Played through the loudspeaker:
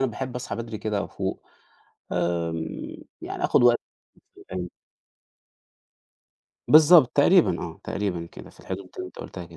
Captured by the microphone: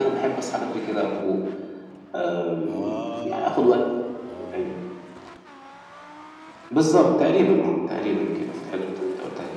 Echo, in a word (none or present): present